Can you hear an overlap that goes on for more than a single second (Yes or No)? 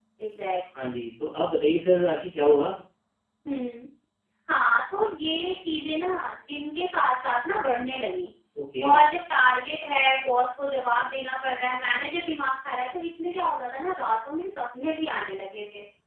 No